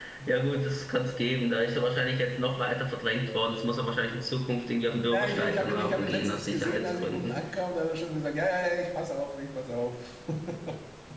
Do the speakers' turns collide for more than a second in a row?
Yes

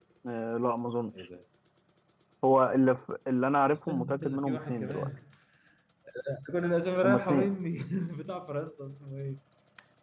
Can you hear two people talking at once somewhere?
Yes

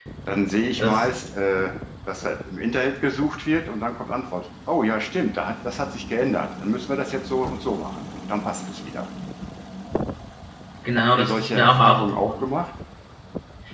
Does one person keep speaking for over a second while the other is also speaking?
Yes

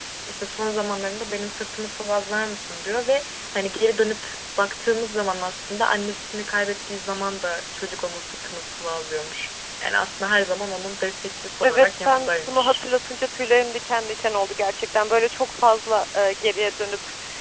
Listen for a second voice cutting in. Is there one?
Yes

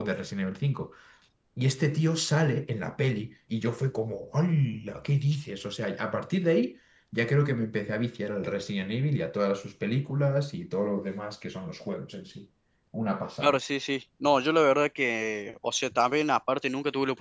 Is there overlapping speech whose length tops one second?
No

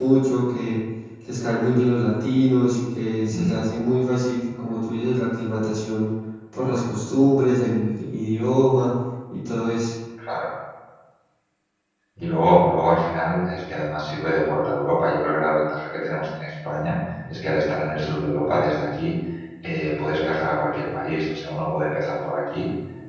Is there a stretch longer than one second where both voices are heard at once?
No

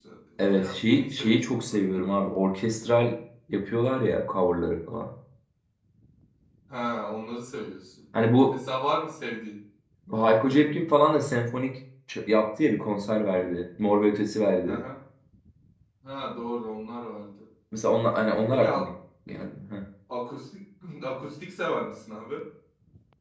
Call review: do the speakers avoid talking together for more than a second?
No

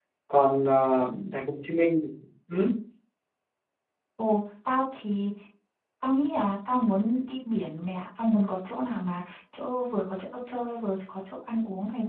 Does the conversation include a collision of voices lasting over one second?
No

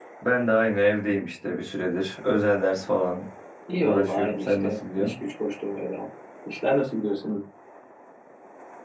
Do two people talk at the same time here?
Yes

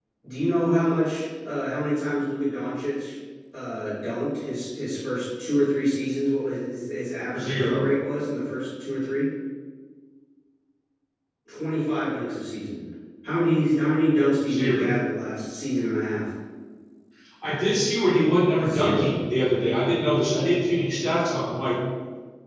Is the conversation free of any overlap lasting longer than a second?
Yes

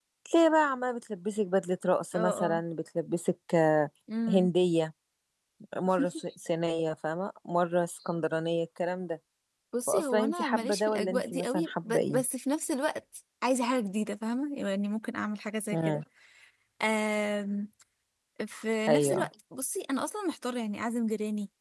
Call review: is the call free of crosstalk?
No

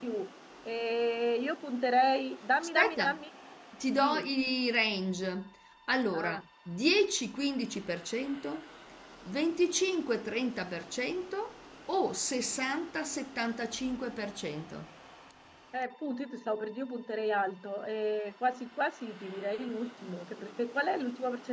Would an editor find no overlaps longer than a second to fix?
Yes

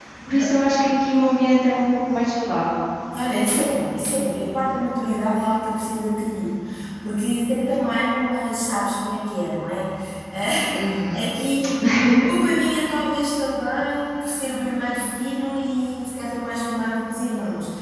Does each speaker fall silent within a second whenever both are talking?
Yes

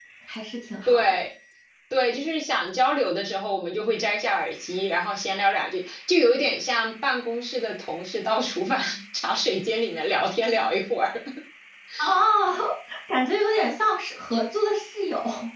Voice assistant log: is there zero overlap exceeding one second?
Yes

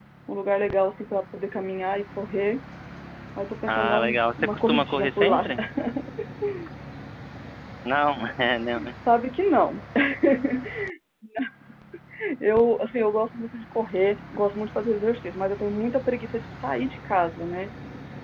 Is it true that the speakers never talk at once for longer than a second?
No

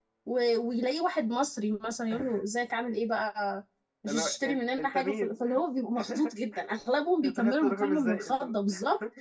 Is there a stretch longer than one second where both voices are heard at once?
Yes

